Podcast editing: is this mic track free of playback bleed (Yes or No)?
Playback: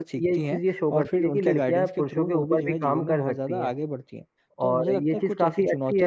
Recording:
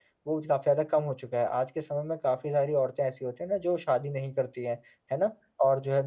Yes